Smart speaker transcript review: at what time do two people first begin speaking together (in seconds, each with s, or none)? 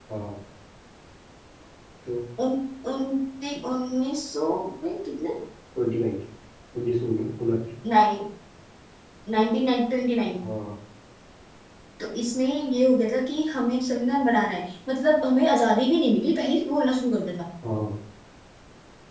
none